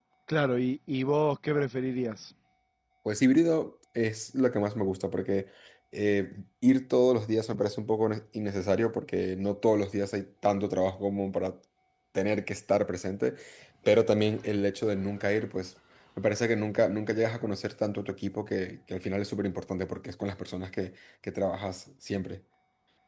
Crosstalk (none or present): none